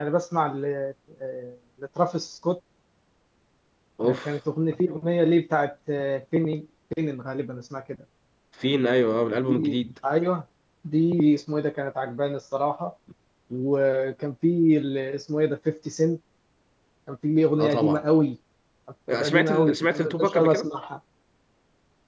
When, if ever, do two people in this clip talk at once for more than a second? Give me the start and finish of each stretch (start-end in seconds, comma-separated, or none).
19.1-20.7